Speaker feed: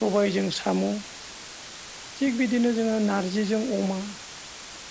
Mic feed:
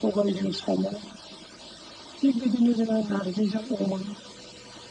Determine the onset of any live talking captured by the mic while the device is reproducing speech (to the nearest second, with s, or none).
none